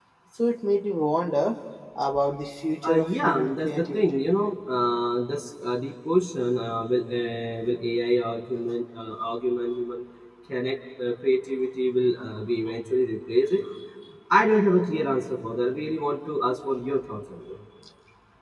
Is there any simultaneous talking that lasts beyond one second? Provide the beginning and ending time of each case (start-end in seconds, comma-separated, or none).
2.9-4.2